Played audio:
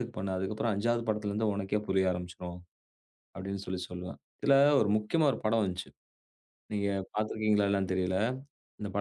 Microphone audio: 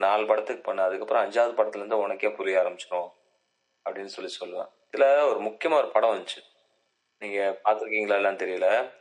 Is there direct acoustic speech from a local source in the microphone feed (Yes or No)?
No